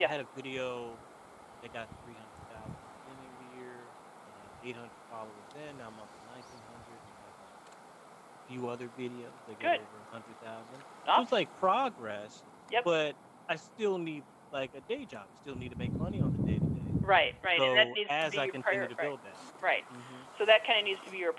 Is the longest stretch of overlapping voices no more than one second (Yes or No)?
No